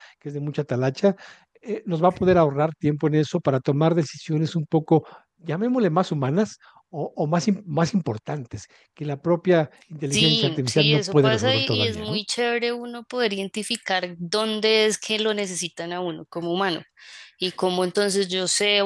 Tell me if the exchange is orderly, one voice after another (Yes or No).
No